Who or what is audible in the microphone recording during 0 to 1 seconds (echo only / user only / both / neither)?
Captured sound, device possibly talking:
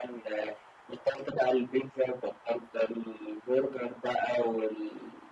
echo only